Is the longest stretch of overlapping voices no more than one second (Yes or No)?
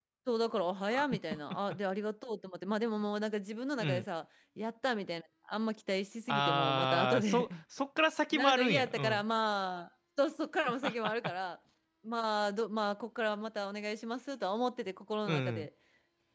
No